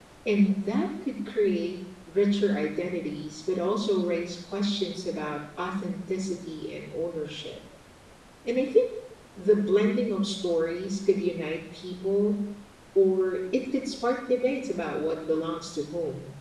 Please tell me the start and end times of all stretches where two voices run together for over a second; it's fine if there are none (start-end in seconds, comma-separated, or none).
none